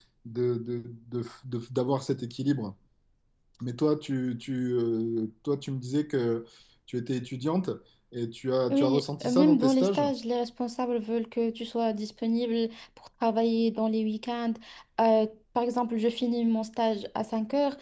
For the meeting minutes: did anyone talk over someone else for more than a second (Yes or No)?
Yes